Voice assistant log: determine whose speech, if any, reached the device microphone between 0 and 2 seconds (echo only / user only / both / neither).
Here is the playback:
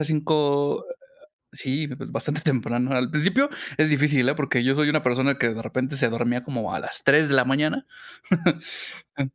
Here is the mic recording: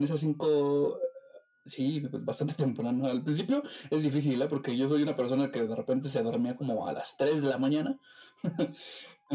echo only